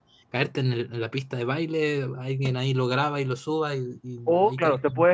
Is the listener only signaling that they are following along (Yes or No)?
No